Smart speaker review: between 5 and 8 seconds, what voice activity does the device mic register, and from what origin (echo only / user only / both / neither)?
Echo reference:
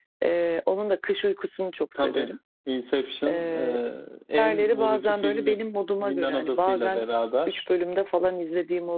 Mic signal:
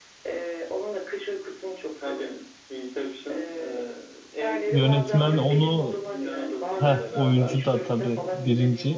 both